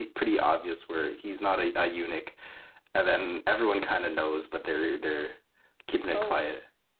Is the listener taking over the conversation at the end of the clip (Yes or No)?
Yes